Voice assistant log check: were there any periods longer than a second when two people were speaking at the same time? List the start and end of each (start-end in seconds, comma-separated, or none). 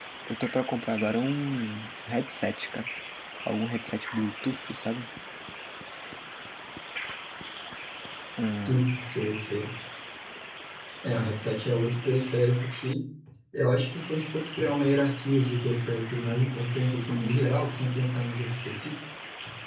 none